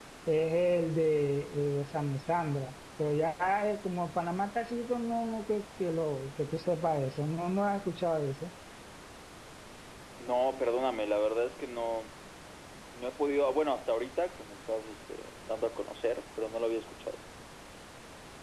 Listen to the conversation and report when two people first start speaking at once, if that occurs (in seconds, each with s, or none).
none